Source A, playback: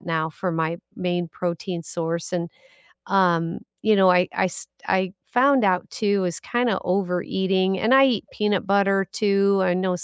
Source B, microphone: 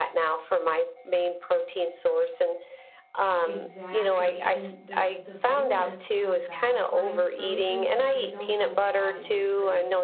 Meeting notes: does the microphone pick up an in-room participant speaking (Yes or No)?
Yes